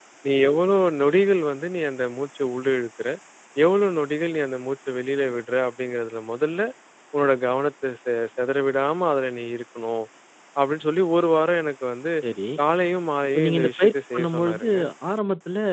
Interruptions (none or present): present